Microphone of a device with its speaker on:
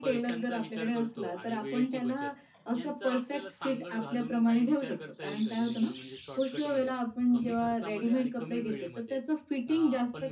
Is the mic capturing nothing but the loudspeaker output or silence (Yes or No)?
No